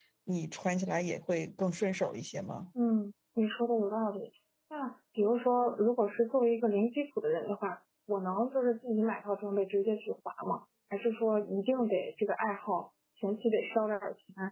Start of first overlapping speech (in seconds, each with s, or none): none